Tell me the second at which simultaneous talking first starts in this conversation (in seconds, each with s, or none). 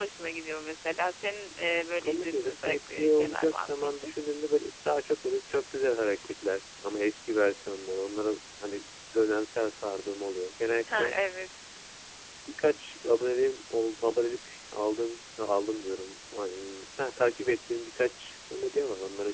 2.0 s